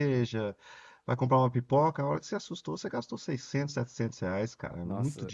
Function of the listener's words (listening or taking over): taking over